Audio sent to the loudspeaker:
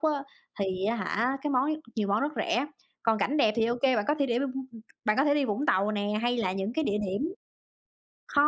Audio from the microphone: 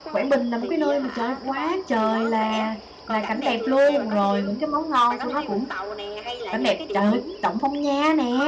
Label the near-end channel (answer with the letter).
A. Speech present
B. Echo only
A